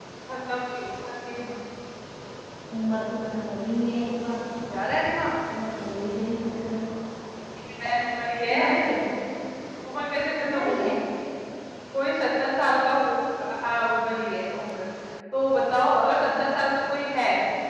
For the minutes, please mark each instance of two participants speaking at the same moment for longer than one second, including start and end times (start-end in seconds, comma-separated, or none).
none